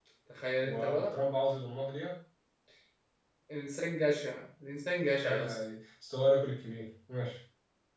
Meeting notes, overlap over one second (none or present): none